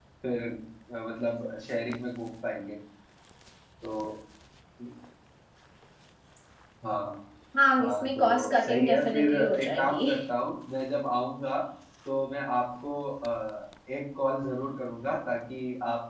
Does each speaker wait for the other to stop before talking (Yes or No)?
No